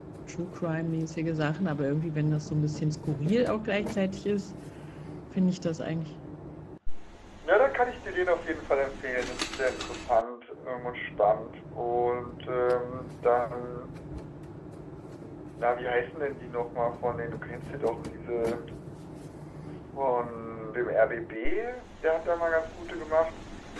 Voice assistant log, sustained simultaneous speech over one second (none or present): none